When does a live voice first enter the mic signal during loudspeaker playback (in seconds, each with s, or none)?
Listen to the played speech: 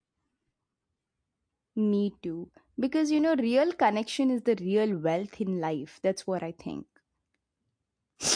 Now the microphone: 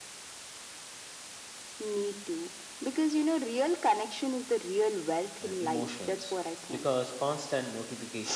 5.4 s